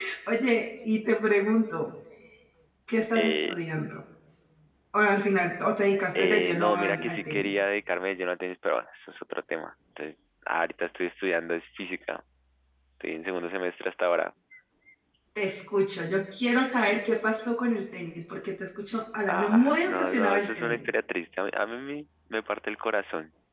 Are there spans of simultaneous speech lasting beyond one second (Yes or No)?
Yes